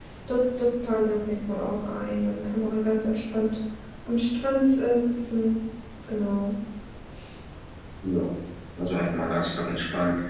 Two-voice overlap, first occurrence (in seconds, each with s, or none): none